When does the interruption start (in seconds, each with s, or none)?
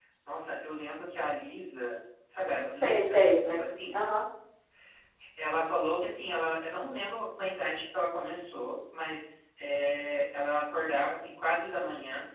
2.8 s